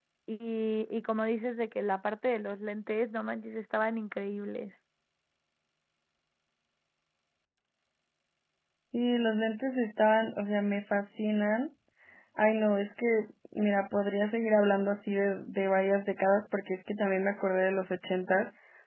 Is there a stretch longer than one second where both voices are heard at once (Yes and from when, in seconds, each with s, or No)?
No